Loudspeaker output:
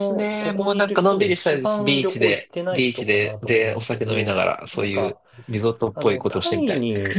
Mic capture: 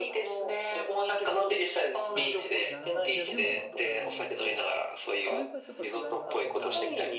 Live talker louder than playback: No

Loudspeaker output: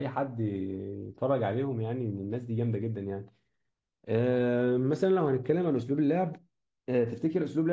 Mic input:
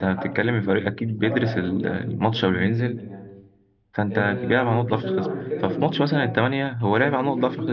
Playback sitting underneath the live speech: Yes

